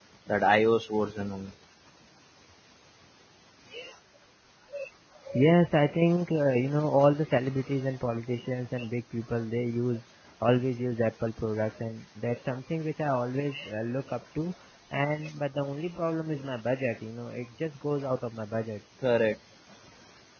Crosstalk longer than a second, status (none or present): none